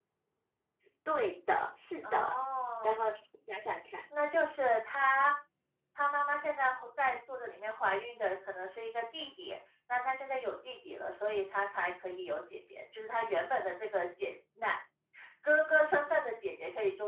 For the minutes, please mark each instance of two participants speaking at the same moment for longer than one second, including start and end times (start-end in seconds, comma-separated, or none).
none